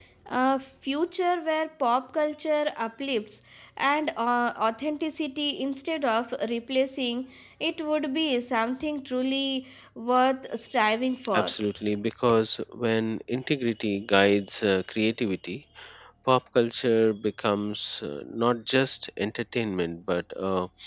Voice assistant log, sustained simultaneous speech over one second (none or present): none